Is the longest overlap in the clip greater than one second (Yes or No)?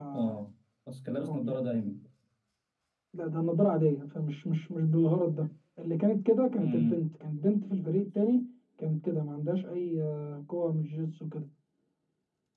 No